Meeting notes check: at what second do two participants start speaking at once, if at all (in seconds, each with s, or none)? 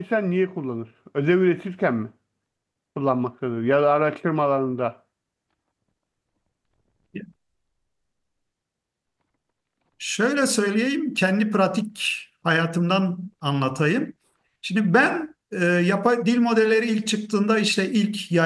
none